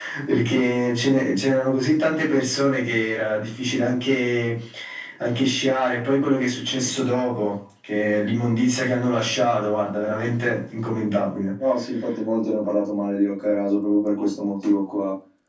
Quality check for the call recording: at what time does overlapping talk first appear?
none

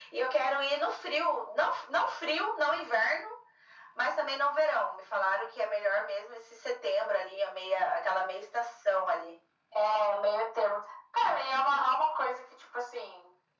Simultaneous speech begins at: none

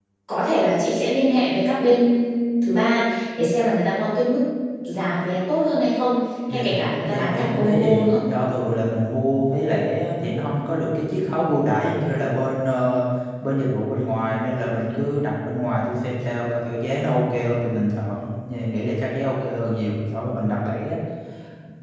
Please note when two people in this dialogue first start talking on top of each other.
6.5 s

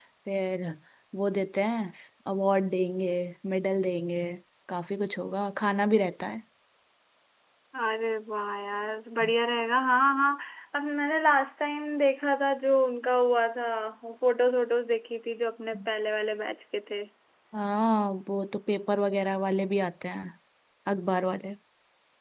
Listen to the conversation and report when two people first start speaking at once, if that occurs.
none

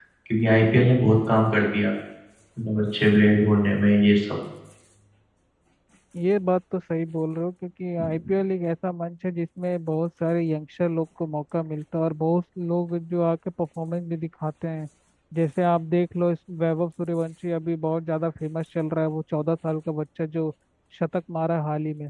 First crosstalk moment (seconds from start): none

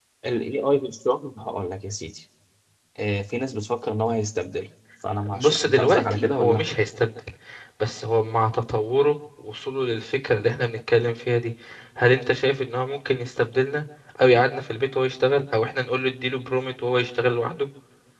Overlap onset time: 5.2 s

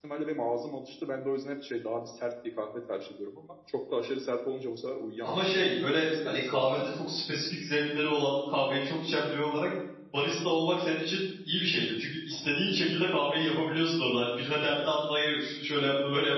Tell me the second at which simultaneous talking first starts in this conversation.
5.2 s

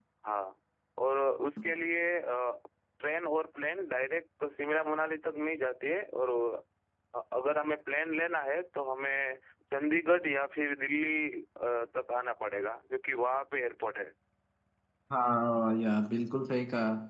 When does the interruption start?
none

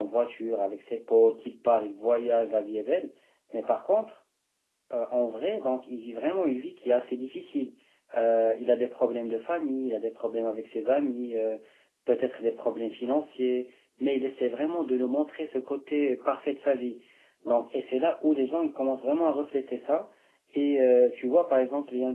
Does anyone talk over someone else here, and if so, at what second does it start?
none

